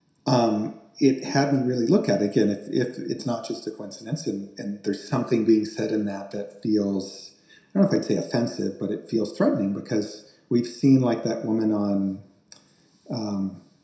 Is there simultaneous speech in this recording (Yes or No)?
No